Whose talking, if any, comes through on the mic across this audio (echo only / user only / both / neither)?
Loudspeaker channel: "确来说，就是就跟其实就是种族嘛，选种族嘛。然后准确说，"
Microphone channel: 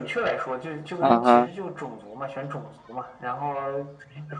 both